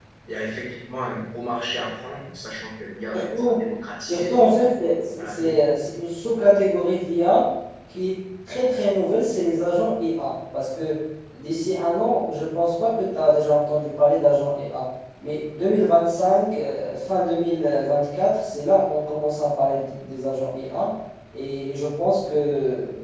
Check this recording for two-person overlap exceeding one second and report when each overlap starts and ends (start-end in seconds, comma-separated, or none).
none